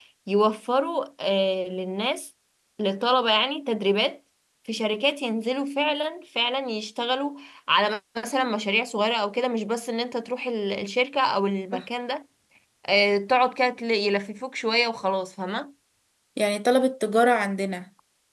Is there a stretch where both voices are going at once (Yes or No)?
No